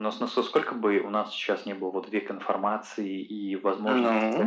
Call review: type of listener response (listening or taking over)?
listening